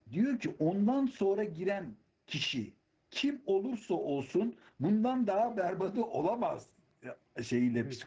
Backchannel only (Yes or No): No